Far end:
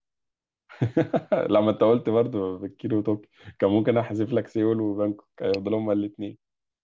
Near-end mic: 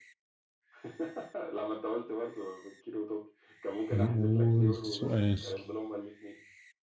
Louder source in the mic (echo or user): user